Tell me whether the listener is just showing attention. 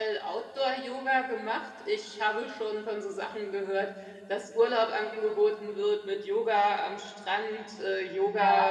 Yes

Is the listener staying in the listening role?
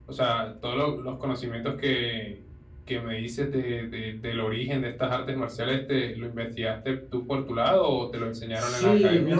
No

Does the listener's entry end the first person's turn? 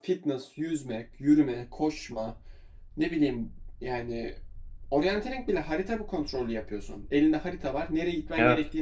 No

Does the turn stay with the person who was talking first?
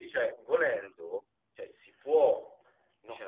No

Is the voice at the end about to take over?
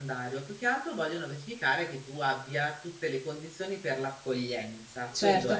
Yes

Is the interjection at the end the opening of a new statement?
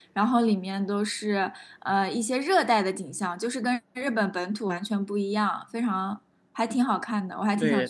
Yes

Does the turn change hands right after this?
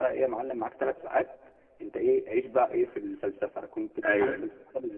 No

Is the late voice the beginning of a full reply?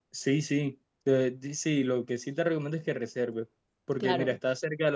No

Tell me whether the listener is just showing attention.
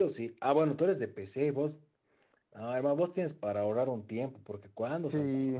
No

